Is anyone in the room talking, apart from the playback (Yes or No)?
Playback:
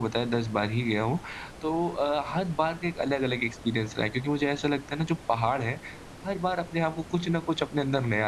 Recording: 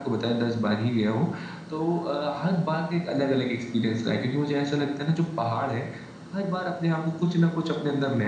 No